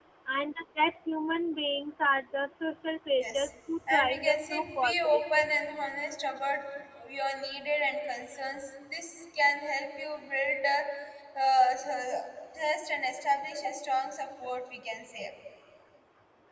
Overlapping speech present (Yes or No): Yes